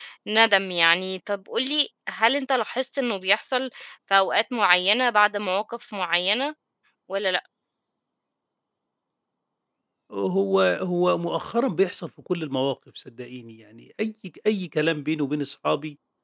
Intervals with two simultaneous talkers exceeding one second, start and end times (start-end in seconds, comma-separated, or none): none